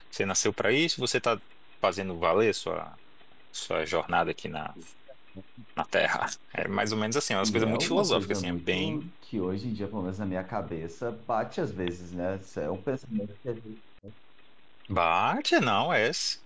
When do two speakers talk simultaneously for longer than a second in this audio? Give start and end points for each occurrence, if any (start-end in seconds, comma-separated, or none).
7.4-9.1